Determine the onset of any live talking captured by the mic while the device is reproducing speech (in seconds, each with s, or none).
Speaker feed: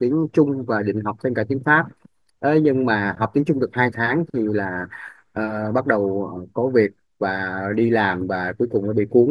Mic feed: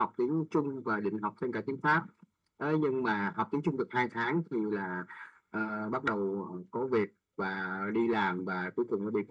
none